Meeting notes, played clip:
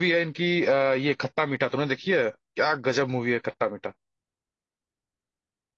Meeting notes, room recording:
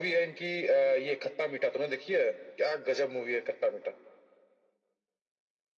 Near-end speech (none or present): none